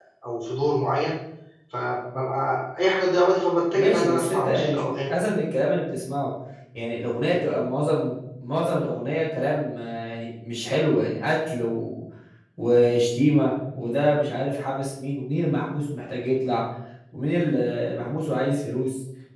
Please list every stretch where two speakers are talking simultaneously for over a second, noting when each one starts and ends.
3.7-5.1

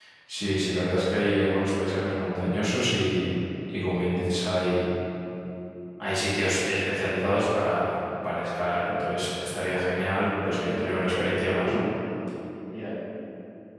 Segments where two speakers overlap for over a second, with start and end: 10.4-11.8

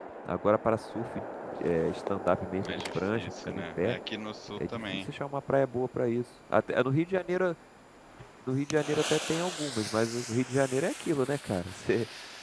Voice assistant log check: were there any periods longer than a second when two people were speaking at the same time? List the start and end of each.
2.6-4.0

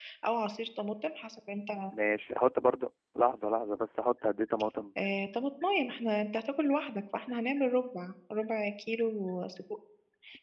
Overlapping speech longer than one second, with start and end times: none

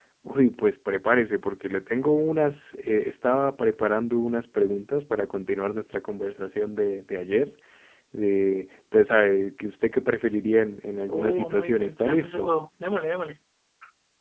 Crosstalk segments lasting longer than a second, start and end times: 11.1-12.5

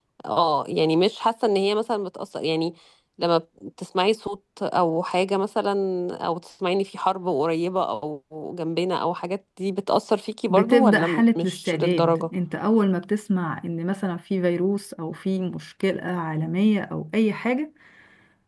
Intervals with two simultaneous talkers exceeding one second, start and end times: 10.5-12.3

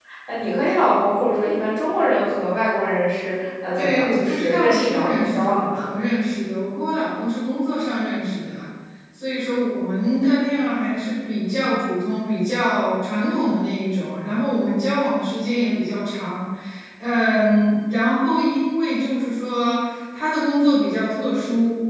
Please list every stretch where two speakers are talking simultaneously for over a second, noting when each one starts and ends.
3.8-5.9

